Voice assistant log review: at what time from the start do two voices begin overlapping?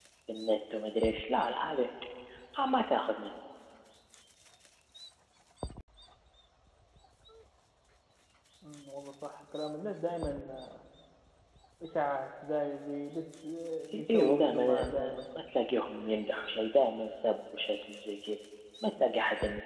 13.9 s

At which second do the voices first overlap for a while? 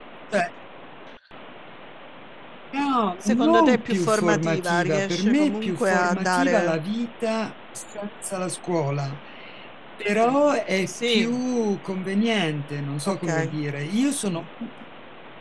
3.2 s

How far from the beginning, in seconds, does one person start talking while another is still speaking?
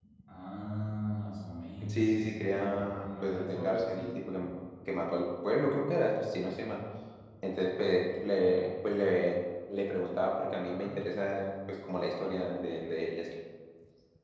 1.8 s

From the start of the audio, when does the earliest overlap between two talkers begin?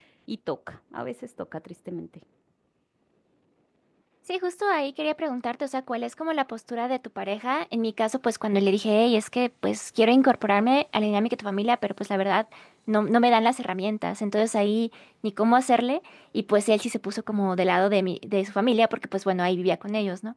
none

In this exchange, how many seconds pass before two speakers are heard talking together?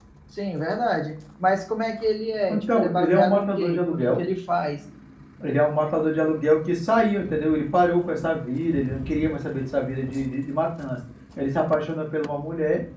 2.5 s

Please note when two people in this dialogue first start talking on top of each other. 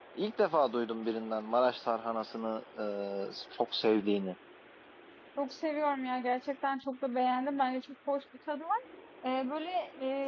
none

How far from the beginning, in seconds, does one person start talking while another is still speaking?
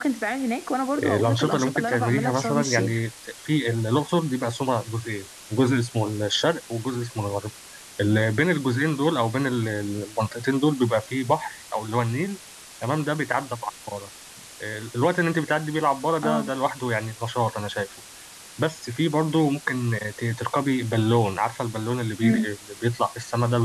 0.9 s

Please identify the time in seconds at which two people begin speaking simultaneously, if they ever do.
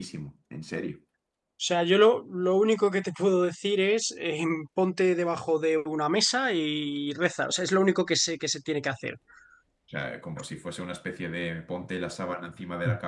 none

